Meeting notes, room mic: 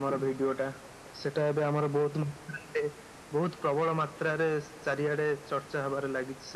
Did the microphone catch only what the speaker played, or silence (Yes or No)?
Yes